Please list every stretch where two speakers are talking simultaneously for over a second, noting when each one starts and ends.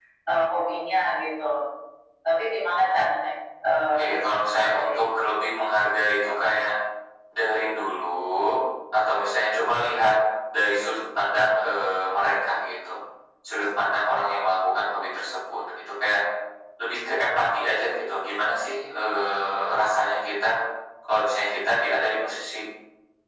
3.9-5.2

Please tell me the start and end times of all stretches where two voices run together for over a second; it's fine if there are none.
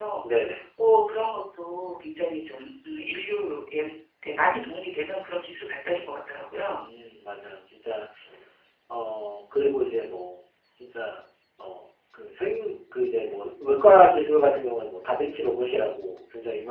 none

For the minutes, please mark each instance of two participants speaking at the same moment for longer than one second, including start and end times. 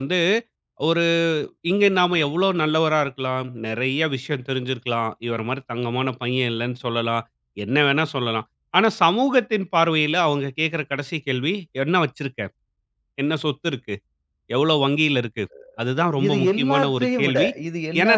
16.2-17.5

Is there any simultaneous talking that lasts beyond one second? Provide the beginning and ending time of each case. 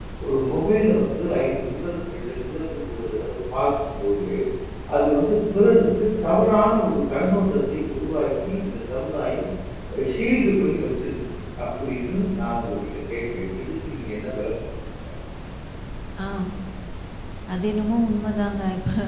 none

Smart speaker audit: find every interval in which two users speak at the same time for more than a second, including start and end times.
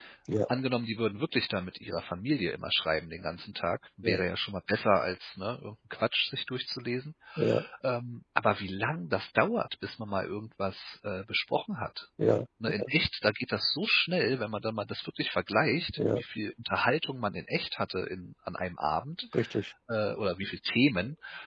none

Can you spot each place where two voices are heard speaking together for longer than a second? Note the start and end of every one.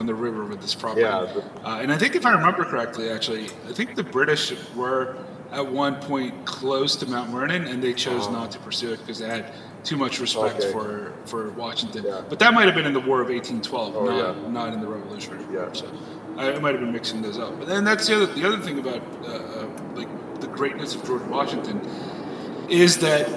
none

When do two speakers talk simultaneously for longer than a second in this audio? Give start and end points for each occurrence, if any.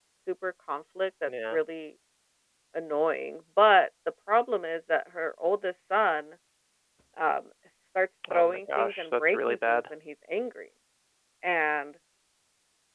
8.3-9.8

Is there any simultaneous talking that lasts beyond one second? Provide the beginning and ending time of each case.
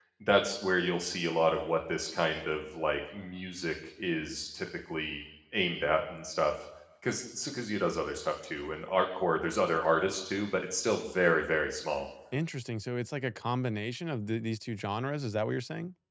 none

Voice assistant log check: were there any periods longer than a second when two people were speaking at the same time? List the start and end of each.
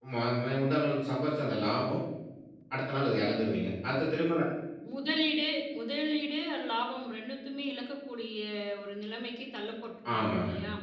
none

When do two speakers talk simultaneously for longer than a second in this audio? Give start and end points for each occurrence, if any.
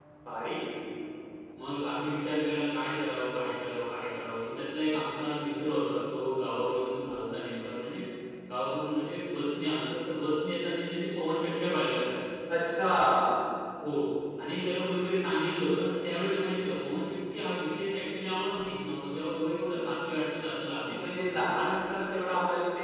none

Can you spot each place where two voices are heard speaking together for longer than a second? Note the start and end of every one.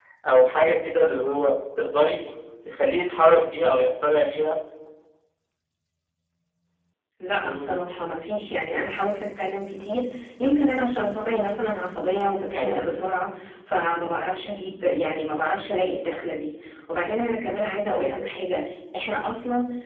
none

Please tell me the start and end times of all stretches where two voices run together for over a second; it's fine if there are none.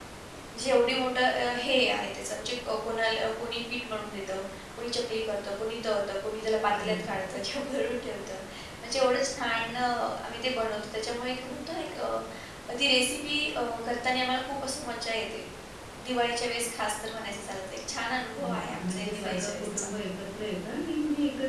18.4-19.9

